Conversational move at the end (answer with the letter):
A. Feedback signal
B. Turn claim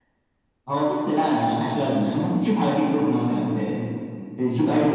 A